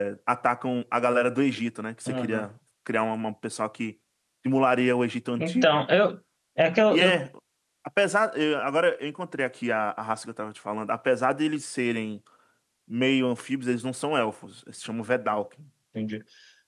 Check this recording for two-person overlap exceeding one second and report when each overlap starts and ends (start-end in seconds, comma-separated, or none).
none